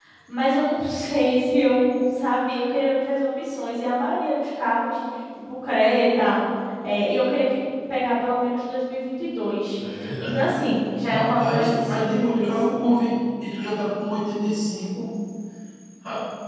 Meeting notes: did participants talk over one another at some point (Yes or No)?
Yes